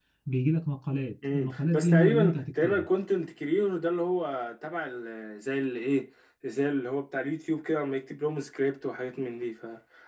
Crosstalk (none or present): present